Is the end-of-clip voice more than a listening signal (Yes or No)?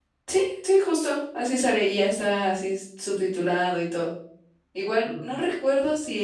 No